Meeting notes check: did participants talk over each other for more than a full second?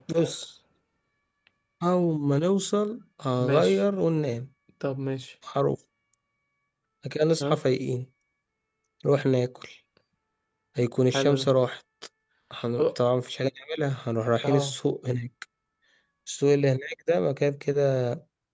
No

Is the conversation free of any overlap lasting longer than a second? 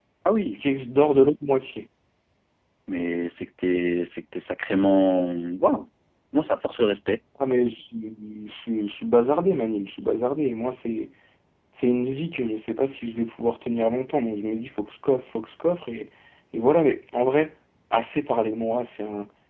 Yes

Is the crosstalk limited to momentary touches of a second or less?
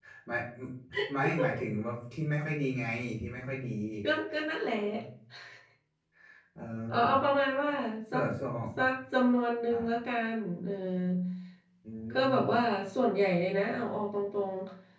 Yes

